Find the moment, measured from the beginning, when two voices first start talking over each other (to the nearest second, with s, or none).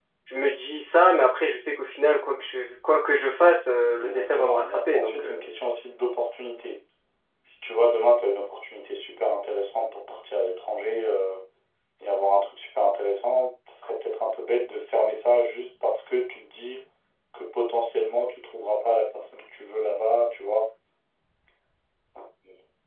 4 s